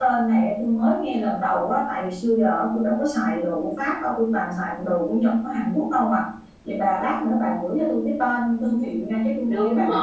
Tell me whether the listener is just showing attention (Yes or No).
No